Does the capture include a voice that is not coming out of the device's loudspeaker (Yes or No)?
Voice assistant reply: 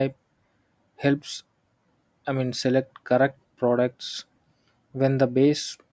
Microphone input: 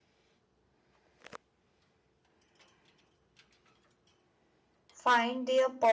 Yes